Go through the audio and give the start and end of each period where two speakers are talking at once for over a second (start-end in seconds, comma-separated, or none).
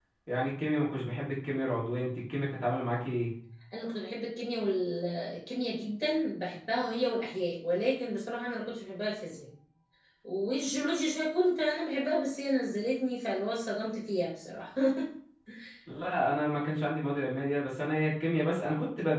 none